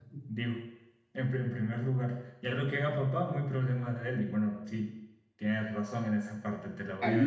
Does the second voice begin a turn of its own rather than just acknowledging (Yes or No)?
Yes